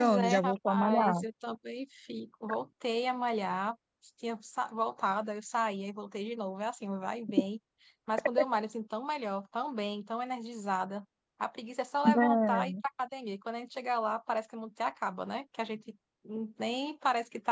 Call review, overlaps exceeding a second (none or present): present